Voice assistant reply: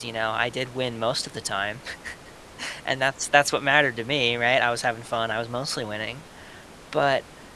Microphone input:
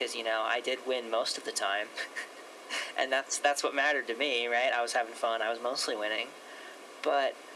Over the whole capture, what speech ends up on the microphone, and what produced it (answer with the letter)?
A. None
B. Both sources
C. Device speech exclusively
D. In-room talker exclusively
C